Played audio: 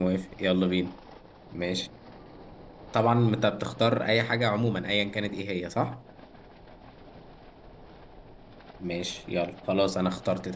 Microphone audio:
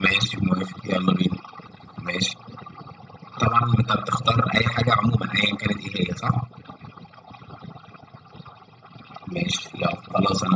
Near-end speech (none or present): none